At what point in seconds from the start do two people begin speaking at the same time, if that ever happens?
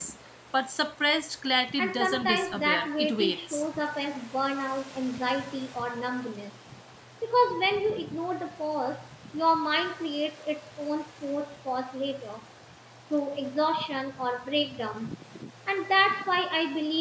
2 s

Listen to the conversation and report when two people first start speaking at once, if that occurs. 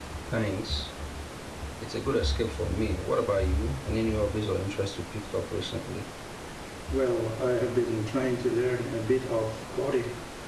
none

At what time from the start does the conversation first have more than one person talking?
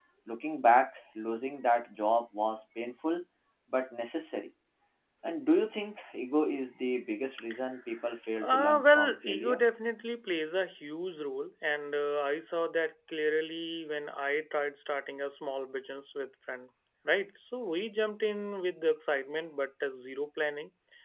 8 s

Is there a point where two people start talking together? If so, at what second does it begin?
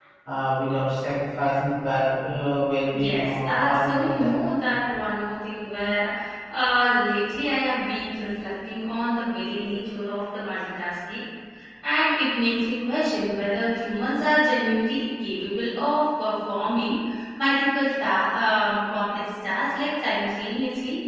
3 s

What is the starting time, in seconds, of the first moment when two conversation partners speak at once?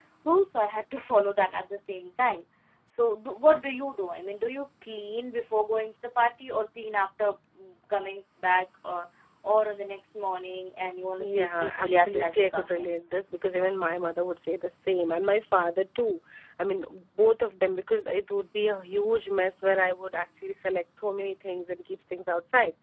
11 s

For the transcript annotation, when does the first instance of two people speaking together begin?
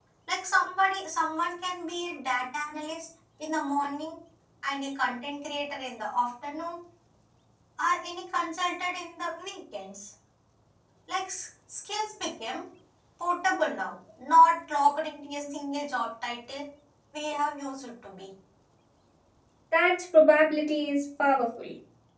none

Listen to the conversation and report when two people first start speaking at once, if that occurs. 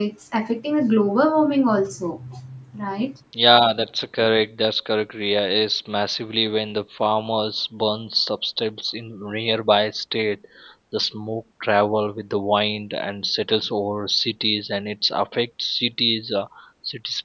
none

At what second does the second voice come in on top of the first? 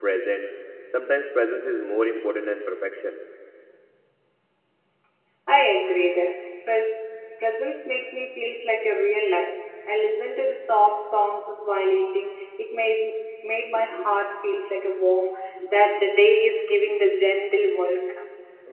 none

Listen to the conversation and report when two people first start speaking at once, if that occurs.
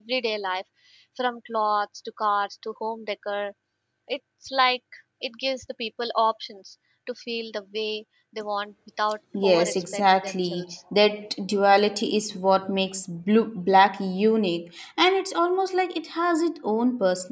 9 s

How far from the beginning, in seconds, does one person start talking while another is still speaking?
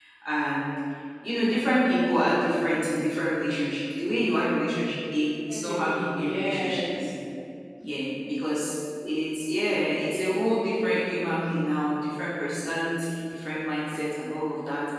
5 s

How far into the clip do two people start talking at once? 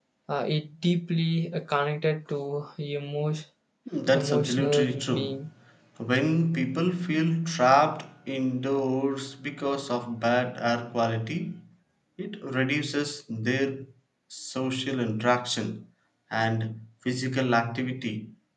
4 s

